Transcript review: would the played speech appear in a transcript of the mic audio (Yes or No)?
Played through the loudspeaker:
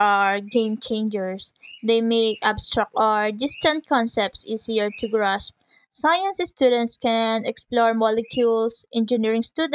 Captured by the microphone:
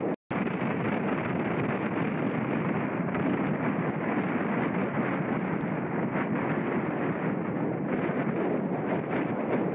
No